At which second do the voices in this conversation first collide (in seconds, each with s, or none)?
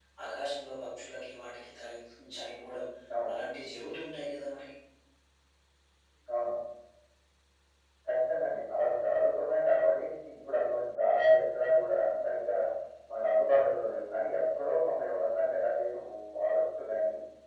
none